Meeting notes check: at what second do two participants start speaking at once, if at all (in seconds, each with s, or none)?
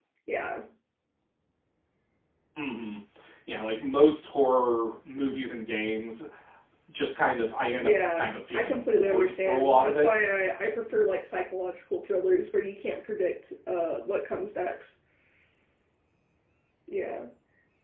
7.8 s